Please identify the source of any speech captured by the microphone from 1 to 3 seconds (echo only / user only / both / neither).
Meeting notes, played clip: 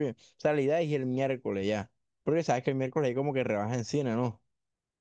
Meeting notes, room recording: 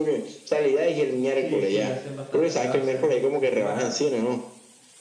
both